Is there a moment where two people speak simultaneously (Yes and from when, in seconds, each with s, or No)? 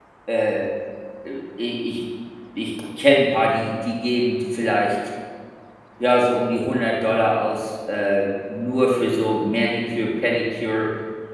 No